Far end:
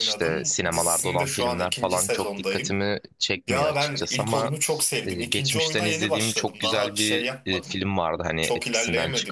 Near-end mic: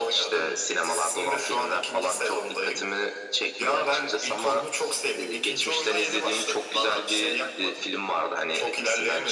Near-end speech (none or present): none